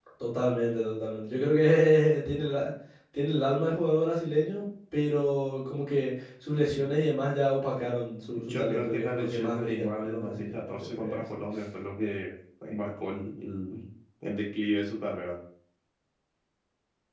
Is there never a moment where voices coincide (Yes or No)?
No